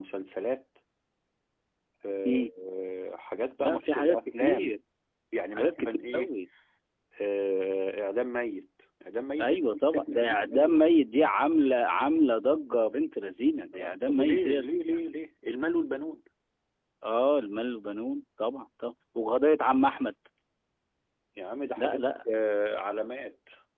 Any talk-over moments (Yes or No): Yes